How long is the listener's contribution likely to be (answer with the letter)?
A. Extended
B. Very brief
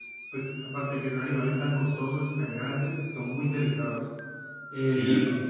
A